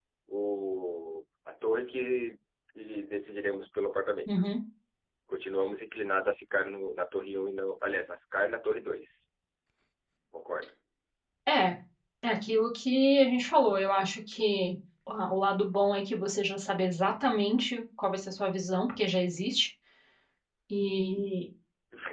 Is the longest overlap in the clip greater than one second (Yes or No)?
No